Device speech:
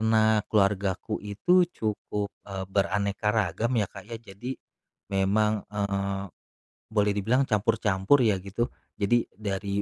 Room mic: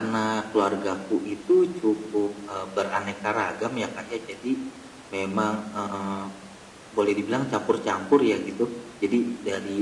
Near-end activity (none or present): none